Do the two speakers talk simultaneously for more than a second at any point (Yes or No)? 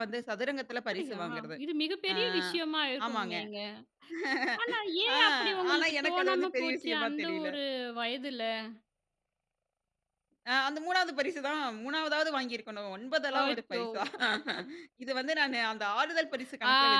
Yes